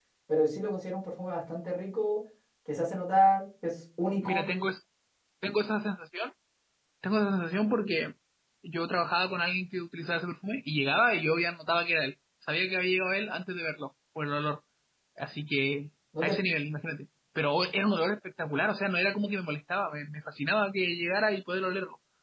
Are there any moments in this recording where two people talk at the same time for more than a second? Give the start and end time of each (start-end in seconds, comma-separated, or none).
none